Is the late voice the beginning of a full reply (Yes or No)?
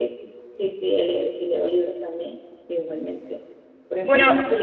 No